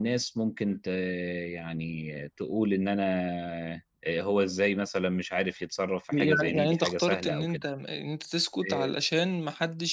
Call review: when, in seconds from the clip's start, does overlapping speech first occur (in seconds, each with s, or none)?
6.1 s